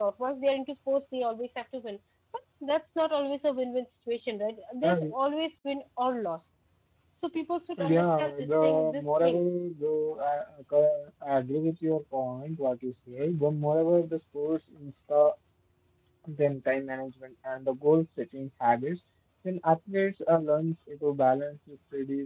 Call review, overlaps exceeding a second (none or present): present